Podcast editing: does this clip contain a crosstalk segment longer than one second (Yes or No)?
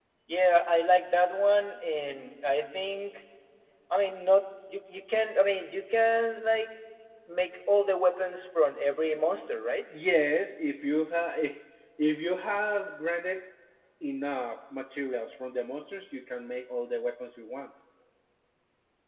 No